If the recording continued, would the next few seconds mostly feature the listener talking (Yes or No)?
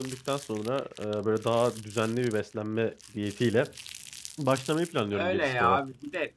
Yes